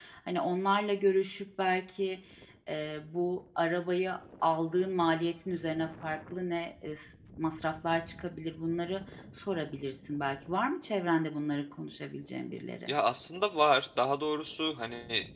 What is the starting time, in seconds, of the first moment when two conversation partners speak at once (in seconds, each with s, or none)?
none